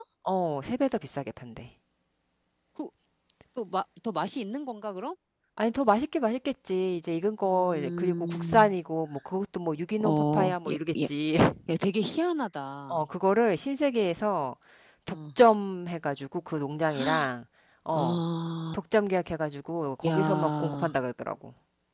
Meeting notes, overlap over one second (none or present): present